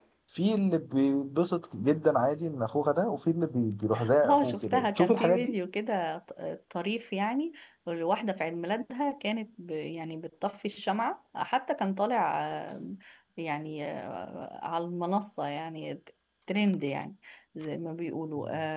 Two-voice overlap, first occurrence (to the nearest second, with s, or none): 4 s